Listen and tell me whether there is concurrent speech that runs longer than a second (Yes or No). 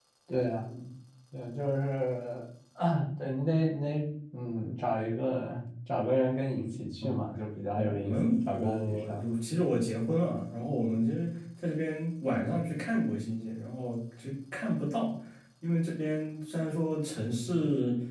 Yes